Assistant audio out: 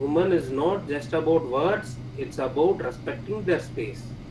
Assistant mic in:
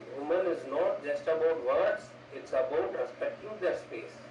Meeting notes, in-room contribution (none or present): none